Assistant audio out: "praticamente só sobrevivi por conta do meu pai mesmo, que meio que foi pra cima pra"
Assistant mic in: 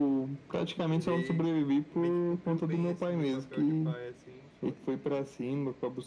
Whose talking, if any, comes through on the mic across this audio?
both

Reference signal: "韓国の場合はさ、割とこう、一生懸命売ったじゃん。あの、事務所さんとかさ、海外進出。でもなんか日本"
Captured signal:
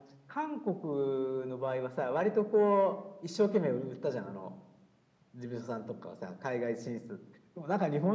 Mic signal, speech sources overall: echo only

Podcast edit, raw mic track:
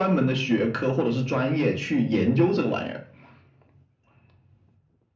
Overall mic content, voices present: echo only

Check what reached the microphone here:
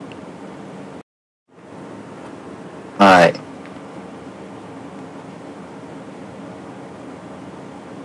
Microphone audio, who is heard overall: user only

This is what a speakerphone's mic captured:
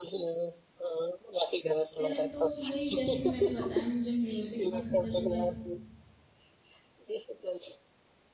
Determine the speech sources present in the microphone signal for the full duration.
both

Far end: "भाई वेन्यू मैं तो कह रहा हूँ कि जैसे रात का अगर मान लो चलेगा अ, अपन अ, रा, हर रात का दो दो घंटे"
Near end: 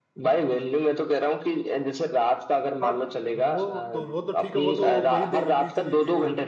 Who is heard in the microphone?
both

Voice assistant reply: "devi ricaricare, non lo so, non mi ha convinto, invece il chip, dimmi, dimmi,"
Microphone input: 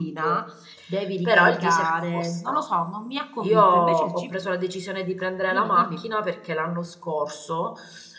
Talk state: both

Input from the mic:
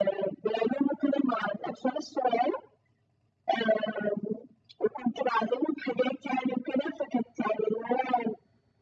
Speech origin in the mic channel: echo only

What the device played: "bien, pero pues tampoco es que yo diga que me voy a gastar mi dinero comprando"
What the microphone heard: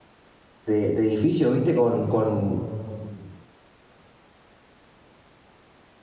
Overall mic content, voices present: user only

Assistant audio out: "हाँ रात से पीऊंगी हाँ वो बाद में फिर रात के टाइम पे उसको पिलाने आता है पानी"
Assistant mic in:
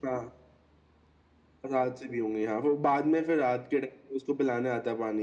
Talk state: echo only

